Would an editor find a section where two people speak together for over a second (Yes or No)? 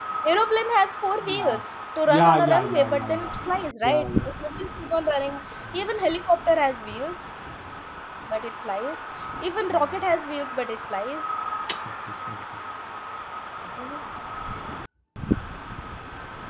Yes